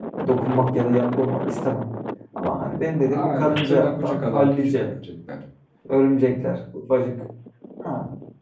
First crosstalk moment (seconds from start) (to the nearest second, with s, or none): 3 s